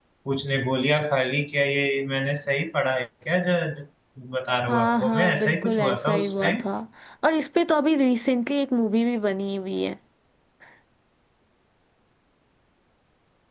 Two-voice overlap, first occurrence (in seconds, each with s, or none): 4.7 s